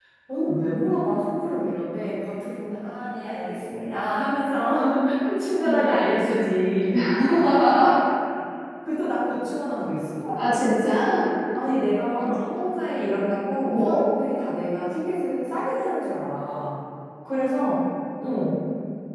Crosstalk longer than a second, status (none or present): none